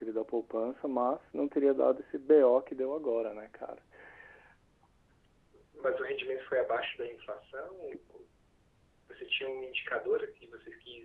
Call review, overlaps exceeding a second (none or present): none